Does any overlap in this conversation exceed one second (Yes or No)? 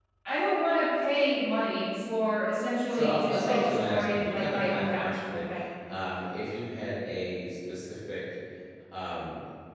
Yes